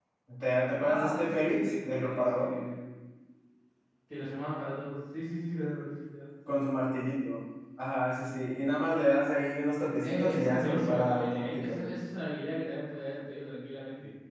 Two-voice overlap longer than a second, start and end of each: 0.8-2.5, 10.0-11.9

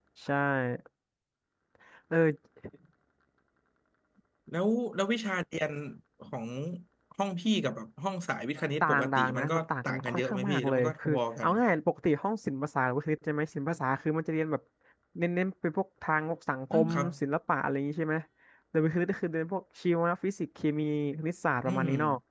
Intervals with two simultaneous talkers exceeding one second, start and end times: 9.0-11.5

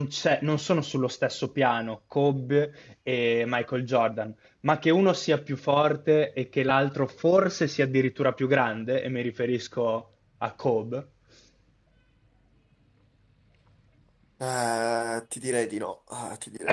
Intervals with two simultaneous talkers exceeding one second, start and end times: none

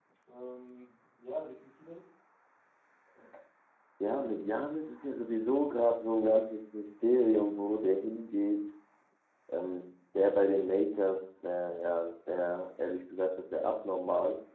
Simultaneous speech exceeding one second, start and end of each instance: none

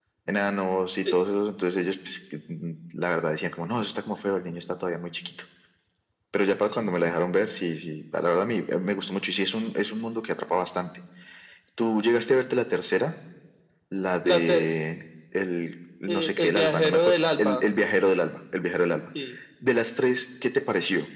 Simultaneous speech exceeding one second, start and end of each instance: 16.1-17.6

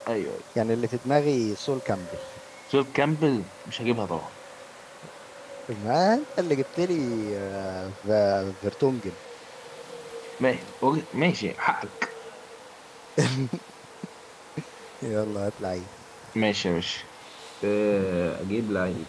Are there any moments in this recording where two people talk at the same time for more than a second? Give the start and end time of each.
none

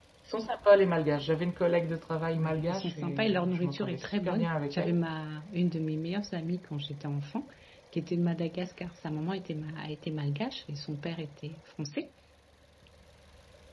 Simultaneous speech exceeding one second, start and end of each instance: 2.4-5.0

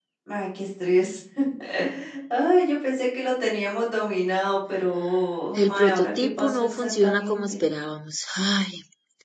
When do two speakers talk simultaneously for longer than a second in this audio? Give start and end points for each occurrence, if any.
5.6-7.6

